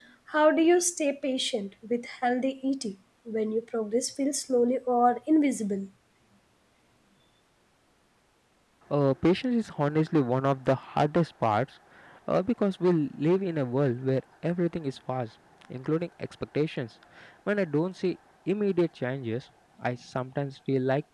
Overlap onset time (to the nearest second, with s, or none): none